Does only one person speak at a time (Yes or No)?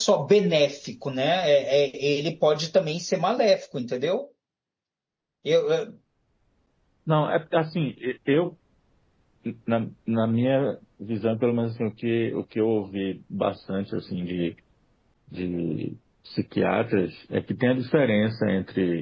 Yes